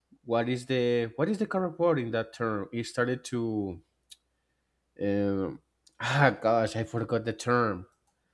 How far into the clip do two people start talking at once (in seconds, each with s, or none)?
none